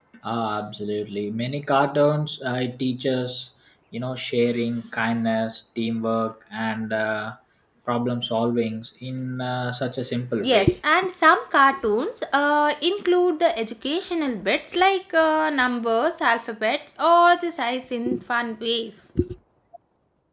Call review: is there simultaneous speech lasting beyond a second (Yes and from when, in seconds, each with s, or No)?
No